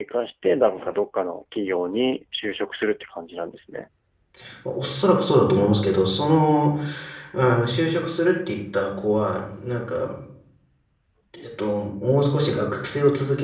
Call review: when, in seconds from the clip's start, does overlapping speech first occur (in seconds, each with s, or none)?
none